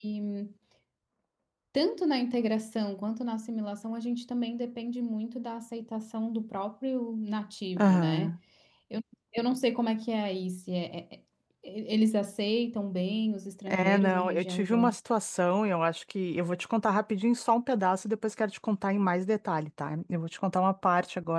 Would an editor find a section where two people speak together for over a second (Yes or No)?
Yes